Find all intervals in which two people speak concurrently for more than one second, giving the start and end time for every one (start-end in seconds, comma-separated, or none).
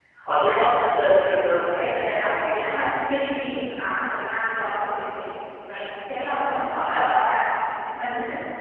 1.7-3.2